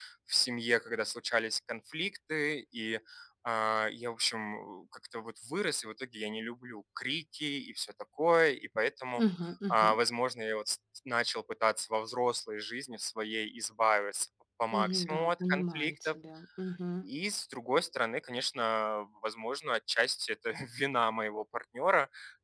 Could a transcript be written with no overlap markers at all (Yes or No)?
No